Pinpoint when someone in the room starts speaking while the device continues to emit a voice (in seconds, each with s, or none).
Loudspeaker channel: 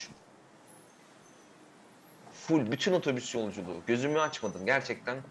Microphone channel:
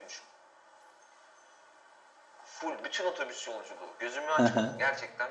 4.4 s